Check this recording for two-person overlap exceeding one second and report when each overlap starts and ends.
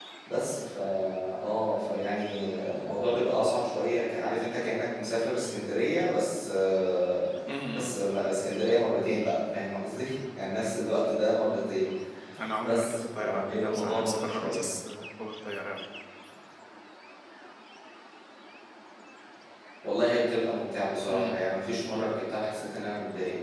12.6-14.6

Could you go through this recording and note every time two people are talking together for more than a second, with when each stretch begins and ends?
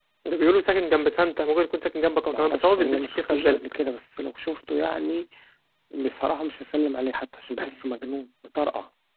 2.3-3.6

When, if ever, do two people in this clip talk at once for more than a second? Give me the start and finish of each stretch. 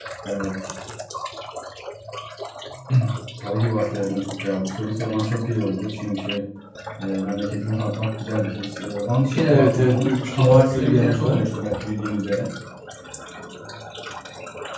9.5-11.4

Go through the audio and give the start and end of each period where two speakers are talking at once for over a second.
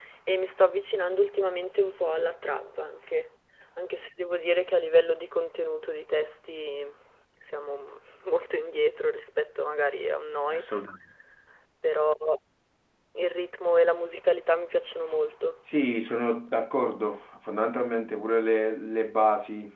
none

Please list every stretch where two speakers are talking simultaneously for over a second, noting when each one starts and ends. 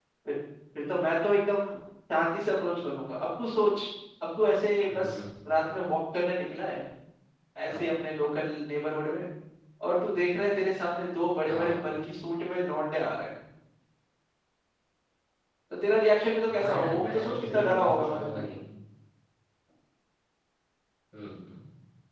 16.4-18.4

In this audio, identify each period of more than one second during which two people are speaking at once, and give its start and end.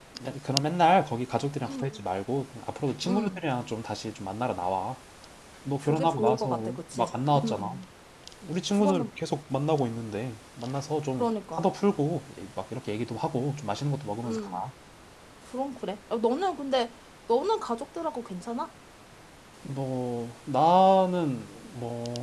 5.8-7.8

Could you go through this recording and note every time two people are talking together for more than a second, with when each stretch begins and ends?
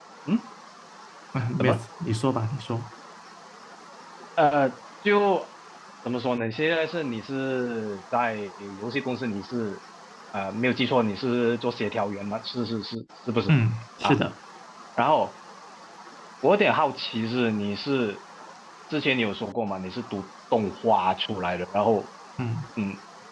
none

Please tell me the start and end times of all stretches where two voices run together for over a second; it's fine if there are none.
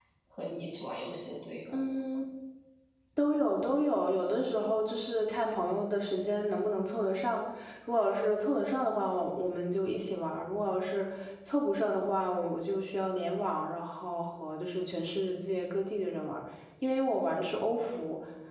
none

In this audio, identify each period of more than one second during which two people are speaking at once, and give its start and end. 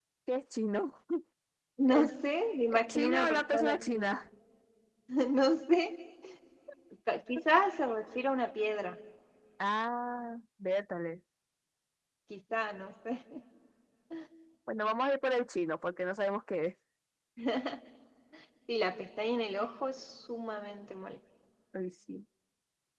2.7-4.0

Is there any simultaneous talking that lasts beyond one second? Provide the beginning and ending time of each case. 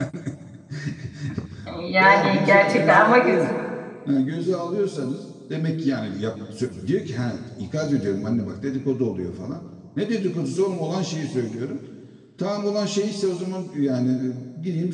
2.0-3.5

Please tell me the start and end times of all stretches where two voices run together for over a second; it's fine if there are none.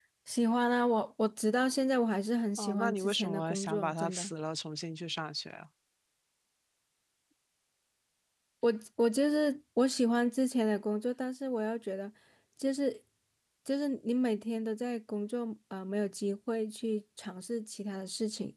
2.6-4.3

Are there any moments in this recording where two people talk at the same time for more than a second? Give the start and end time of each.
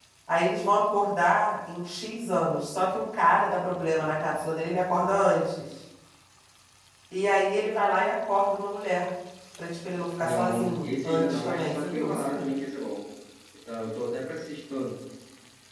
10.2-12.4

